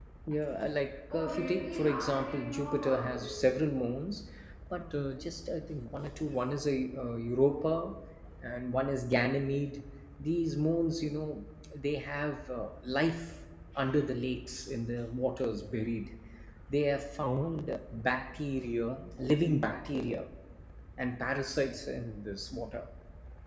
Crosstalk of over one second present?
Yes, from 1.1 s

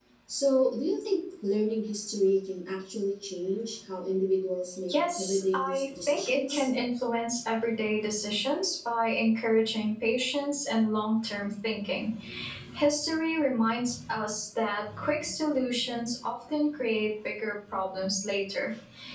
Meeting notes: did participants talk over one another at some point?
Yes, from 4.9 s

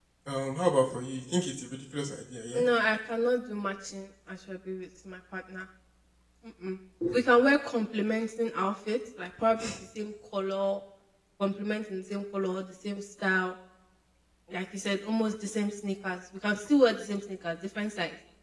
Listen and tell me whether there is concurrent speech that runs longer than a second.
No

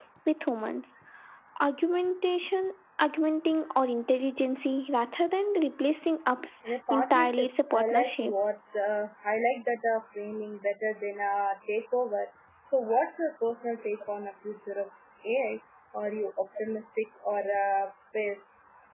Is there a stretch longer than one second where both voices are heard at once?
Yes, from 6.9 s

